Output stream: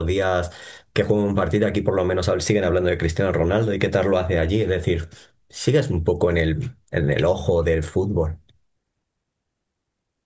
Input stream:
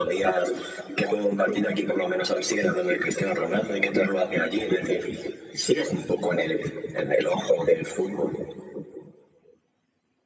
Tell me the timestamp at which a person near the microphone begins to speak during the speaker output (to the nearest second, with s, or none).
none